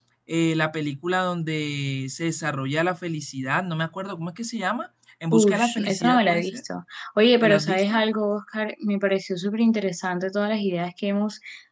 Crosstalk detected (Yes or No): Yes